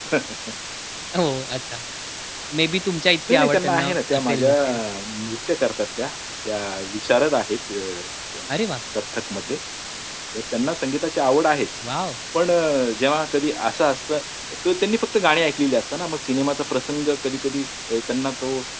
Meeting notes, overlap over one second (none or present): present